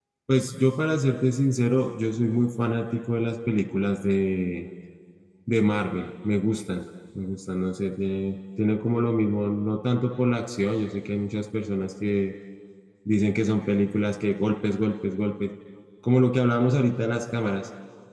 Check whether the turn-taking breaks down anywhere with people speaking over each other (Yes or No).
No